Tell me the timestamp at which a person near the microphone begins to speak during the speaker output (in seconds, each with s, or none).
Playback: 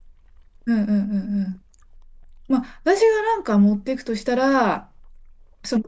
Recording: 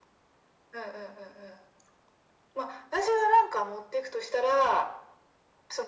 none